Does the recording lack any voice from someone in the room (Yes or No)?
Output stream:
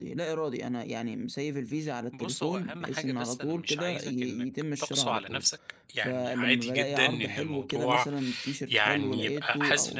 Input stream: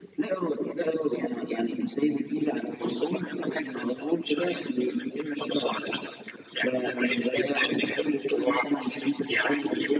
Yes